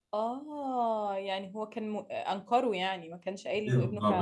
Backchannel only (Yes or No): No